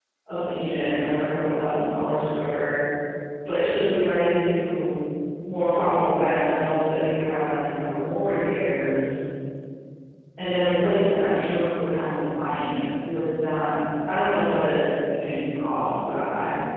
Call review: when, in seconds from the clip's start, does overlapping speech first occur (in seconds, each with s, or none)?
none